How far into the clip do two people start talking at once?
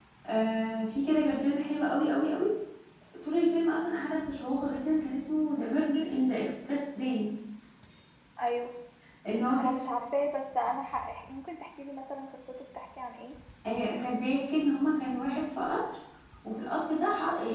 none

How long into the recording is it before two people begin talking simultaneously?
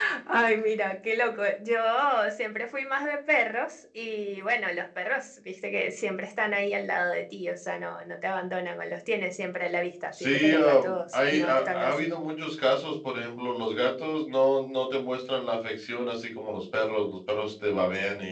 10.1 s

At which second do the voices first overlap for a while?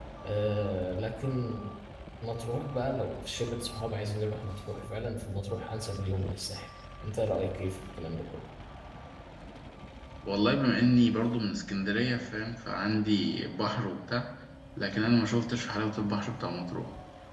none

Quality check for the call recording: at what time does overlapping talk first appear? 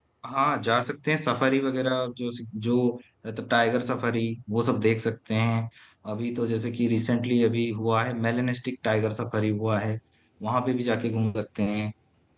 none

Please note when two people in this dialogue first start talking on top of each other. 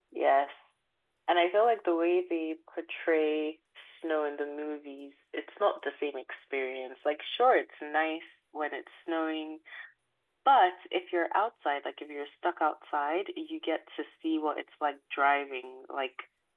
none

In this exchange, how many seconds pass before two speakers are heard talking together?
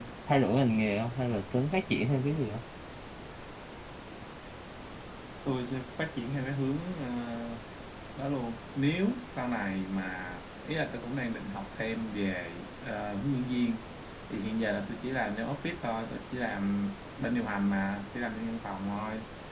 none

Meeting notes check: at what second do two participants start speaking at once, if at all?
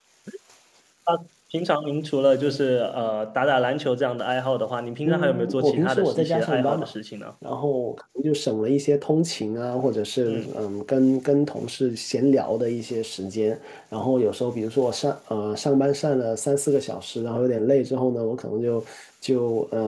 5.0 s

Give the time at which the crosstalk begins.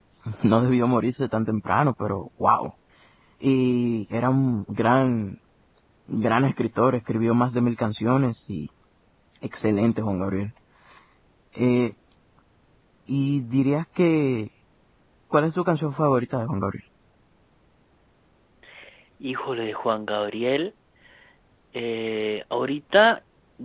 none

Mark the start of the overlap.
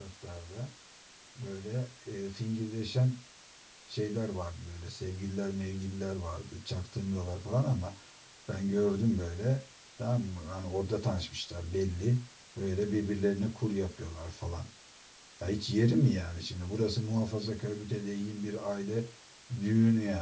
none

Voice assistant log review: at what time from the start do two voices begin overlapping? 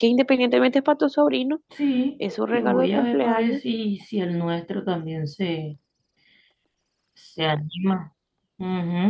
2.3 s

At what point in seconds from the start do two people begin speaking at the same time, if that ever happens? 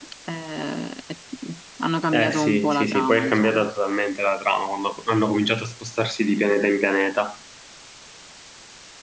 2.1 s

